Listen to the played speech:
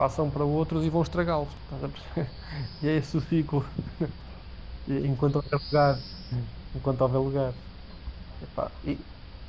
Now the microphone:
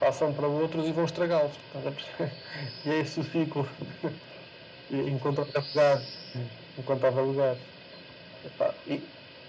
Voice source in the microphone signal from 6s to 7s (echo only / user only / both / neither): echo only